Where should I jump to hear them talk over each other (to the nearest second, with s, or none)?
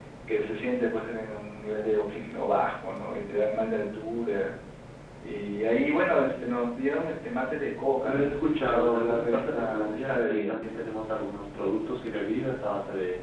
8 s